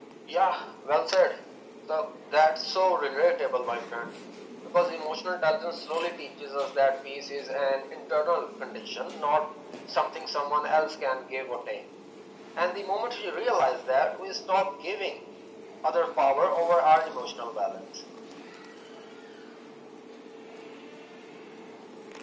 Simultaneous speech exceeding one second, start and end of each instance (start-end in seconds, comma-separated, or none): none